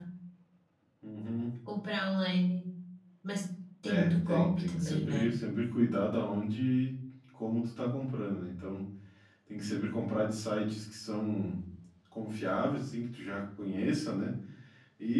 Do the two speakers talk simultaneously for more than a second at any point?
Yes, from 3.9 s

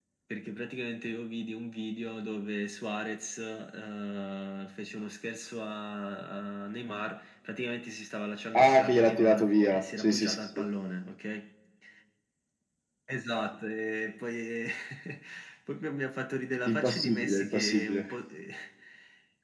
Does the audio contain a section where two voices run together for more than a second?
Yes, from 8.5 s

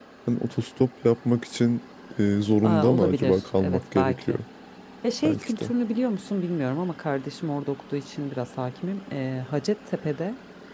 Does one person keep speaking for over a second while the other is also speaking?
Yes, from 2.6 s

